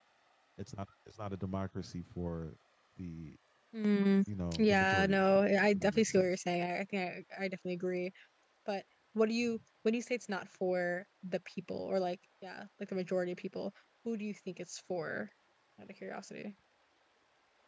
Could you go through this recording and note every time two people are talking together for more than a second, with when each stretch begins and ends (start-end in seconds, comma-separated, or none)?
4.5-6.3